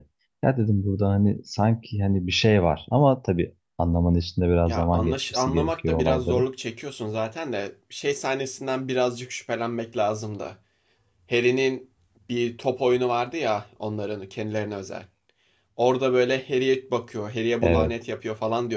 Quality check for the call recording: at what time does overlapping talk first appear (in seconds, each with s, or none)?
4.7 s